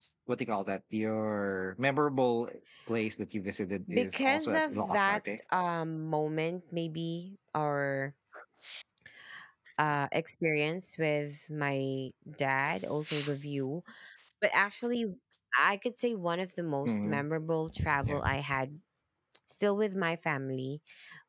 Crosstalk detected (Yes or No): Yes